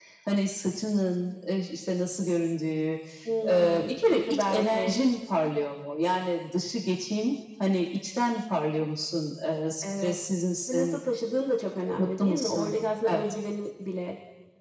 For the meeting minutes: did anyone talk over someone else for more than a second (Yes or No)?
Yes